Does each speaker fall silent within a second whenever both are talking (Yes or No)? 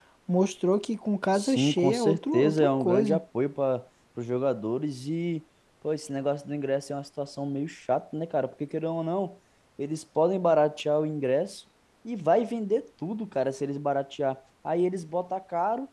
No